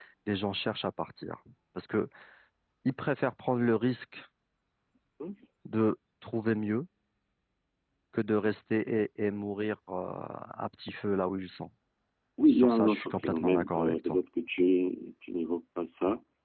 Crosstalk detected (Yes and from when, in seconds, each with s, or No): Yes, from 12.5 s